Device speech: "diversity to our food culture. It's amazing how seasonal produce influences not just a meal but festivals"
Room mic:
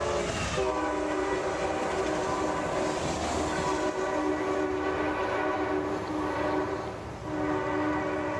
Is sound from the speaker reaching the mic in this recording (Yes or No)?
No